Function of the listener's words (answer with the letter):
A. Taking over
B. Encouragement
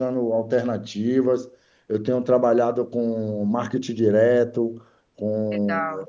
B